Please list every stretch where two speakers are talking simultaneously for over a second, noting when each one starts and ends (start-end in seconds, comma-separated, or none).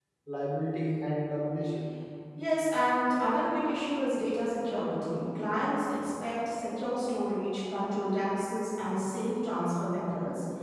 none